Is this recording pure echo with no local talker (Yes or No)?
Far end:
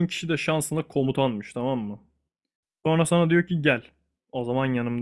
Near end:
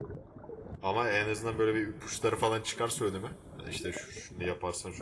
No